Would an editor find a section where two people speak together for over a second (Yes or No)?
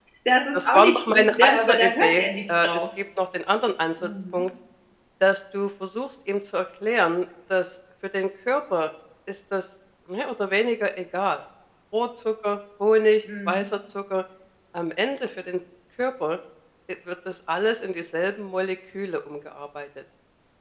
Yes